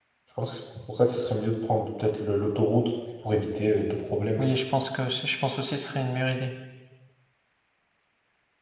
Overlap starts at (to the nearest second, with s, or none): none